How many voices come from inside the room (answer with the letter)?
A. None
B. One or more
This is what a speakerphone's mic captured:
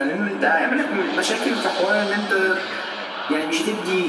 B